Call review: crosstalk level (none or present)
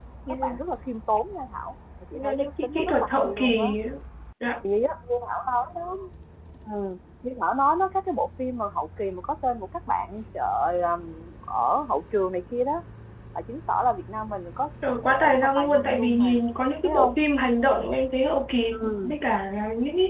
present